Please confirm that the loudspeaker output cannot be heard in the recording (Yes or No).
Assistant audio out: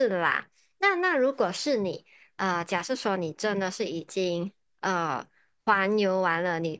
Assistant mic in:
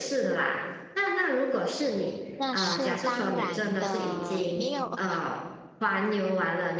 No